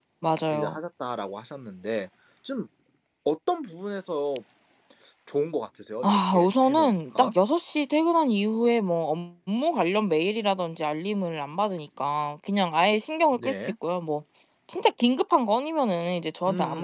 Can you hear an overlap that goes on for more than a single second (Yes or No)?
Yes